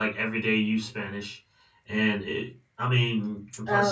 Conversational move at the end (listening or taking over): listening